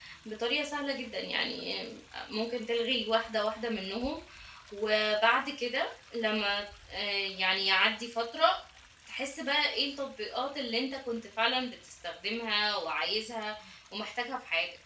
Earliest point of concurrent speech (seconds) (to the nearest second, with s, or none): none